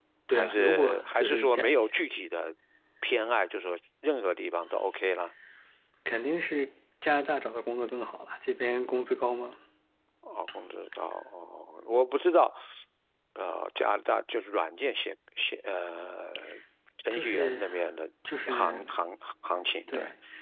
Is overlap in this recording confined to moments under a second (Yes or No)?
No